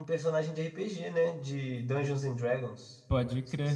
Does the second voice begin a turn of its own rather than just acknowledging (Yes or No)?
Yes